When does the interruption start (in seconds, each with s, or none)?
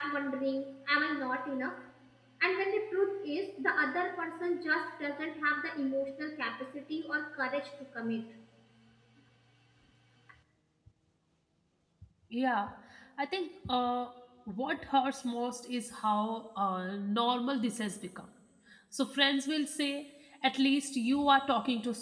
none